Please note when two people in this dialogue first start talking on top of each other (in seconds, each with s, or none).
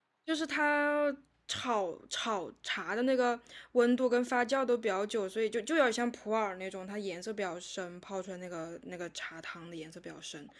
none